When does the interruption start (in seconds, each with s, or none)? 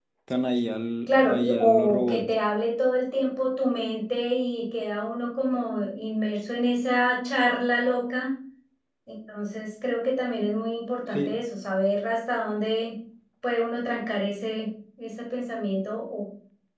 1.1 s